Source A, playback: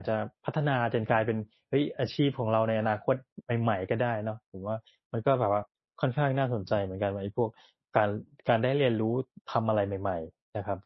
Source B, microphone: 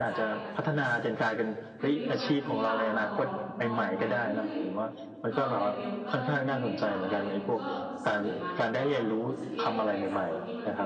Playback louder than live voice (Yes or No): Yes